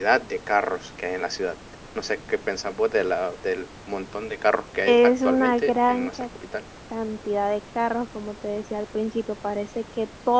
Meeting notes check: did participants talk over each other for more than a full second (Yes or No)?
Yes